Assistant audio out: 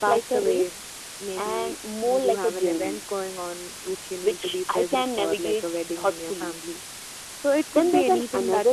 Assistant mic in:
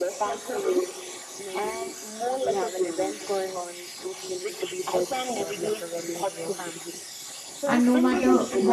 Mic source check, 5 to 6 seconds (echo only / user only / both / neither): echo only